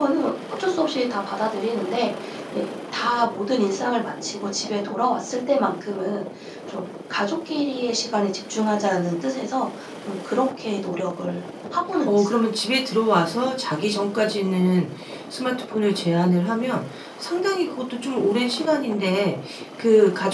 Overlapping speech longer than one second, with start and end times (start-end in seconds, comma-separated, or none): none